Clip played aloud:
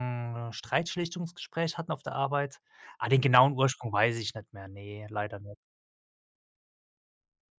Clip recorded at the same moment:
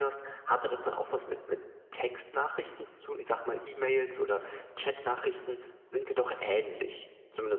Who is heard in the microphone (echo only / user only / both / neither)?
user only